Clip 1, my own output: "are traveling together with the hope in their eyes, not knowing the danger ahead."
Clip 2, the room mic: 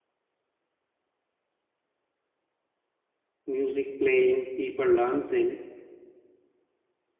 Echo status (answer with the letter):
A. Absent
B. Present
A